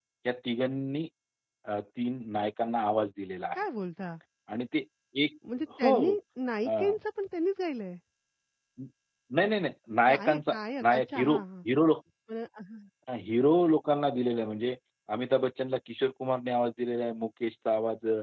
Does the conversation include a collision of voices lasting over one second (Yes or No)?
Yes